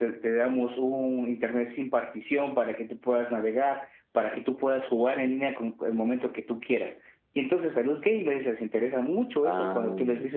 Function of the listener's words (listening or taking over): listening